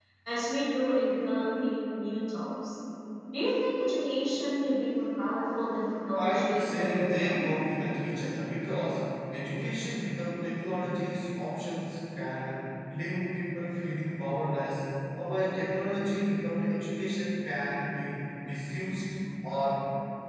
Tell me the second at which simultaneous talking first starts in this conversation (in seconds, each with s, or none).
6.1 s